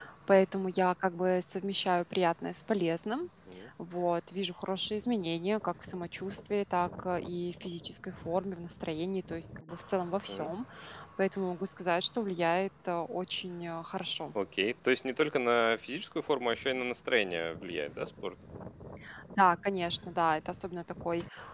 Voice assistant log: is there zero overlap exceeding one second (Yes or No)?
Yes